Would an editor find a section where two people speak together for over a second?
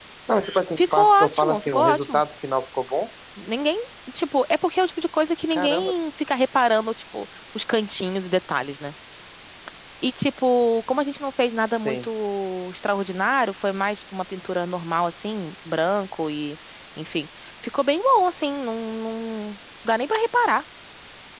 Yes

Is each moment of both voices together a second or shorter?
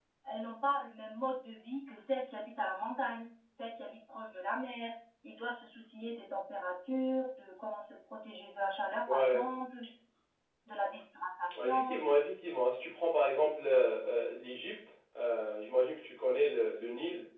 Yes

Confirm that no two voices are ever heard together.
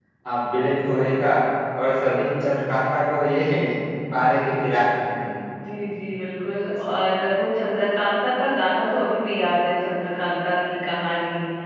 Yes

